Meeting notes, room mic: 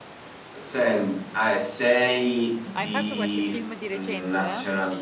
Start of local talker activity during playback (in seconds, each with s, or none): 2.7 s